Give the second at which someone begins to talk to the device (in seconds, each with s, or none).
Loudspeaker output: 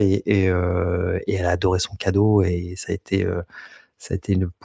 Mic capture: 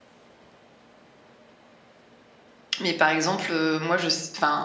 2.8 s